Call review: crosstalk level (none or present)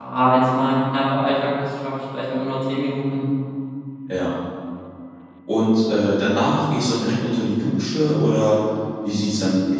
none